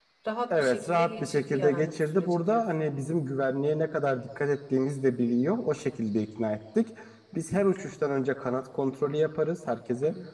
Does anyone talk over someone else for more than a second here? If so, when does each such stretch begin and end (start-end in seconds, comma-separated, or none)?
0.5-2.9